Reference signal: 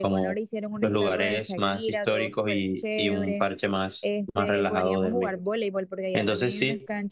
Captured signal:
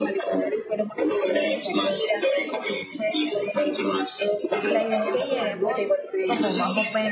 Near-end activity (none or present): present